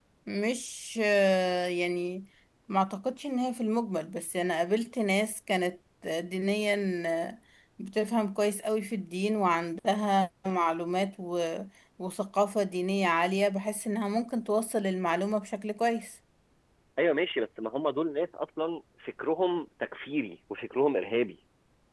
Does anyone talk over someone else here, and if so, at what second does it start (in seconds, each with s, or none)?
none